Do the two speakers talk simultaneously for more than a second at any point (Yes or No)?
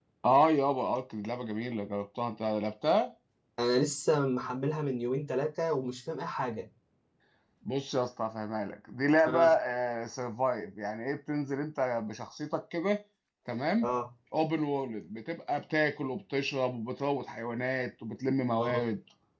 No